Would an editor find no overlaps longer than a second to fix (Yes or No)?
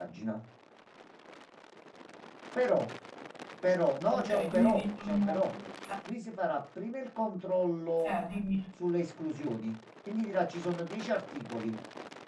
No